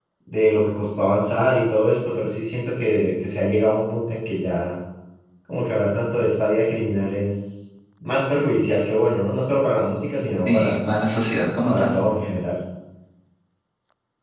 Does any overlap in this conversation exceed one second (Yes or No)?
No